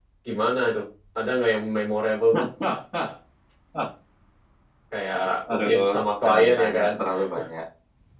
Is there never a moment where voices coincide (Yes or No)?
No